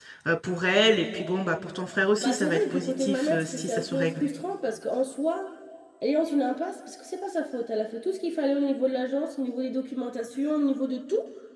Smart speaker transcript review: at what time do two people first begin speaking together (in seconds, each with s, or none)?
2.2 s